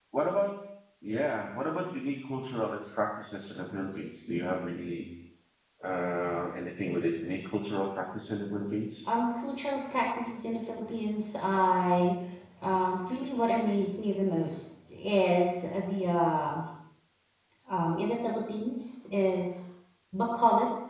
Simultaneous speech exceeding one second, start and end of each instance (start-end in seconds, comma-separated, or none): none